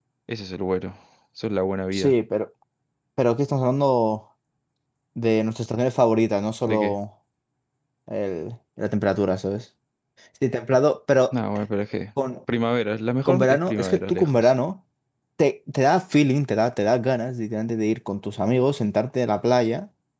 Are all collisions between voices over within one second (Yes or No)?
No